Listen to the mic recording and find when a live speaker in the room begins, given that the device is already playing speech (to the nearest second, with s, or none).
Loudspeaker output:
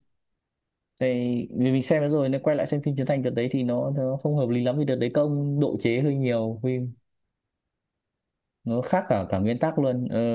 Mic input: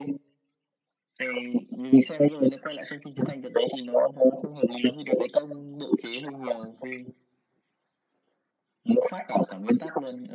none